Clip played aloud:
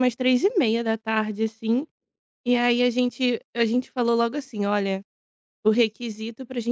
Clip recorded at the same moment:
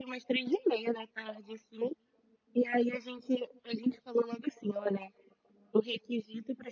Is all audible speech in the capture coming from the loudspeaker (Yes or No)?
Yes